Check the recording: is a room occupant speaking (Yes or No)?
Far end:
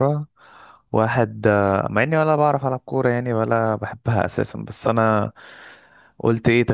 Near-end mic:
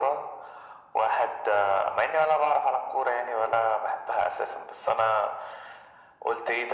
No